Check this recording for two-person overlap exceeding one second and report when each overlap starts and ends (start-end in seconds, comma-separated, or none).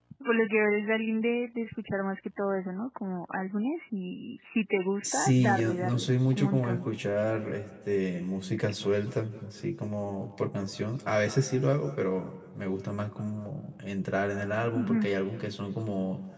5.0-6.8